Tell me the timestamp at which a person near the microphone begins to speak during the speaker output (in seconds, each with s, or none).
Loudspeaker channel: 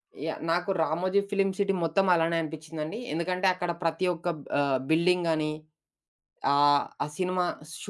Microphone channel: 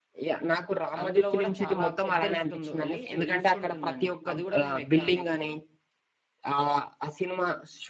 1.0 s